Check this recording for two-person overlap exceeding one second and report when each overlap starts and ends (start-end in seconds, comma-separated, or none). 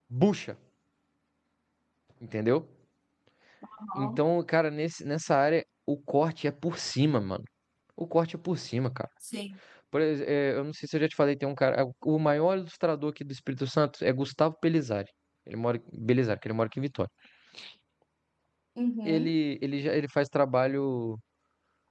none